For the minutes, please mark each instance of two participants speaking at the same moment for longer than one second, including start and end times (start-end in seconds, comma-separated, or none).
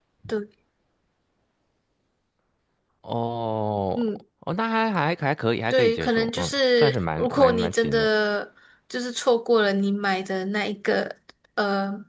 5.7-8.1